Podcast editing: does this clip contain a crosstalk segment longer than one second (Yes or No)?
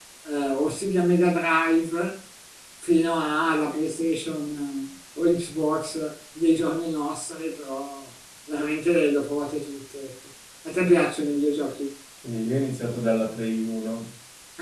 No